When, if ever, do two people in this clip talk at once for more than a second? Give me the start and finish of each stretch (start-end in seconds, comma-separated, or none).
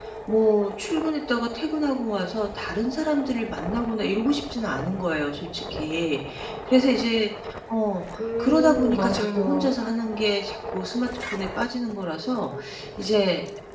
8.4-9.7